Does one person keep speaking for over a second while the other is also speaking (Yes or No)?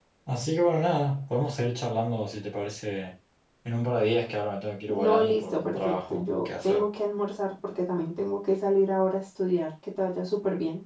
Yes